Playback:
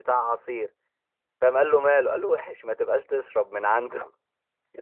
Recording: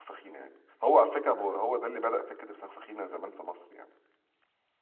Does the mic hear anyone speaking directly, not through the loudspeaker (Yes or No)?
Yes